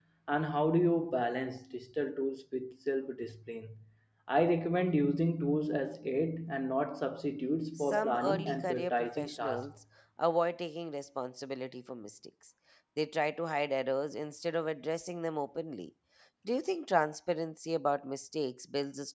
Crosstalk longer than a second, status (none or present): present